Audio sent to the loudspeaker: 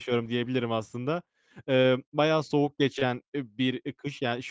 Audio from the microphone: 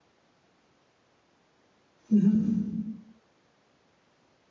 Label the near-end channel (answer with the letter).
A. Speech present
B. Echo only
A